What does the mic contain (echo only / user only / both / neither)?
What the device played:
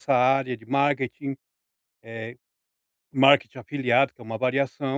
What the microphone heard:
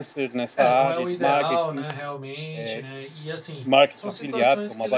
both